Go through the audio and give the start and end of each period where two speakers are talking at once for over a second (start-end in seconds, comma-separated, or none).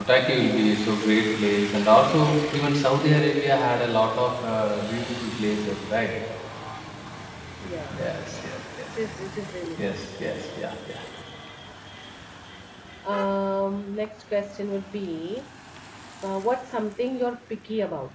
none